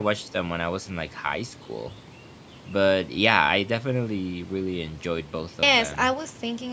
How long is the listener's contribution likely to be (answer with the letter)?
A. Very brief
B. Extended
B